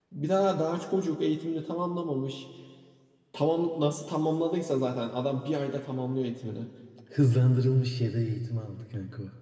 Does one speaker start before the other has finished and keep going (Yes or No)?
No